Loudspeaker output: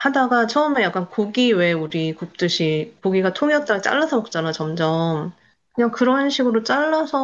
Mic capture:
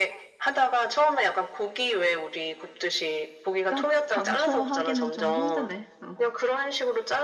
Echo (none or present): present